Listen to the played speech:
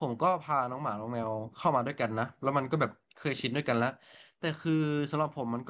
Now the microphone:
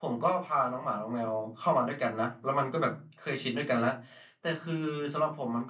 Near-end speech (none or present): none